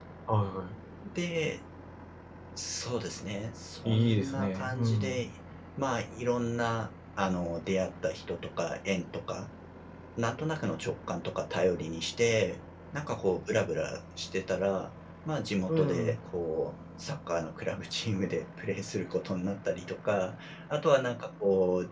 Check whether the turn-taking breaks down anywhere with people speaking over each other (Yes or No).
Yes